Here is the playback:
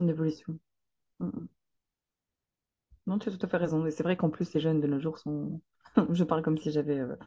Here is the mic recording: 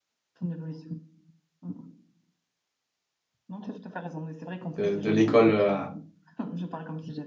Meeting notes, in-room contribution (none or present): present